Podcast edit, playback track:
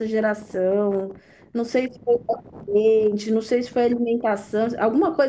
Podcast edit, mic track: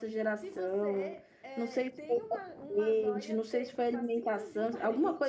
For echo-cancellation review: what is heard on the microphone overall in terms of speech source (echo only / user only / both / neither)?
both